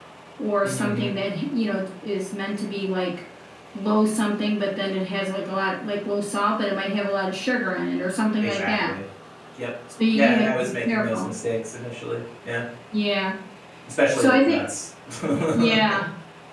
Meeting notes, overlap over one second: present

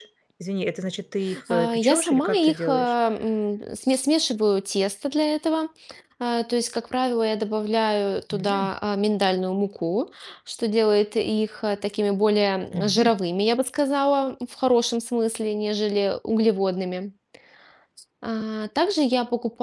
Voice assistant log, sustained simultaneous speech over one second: present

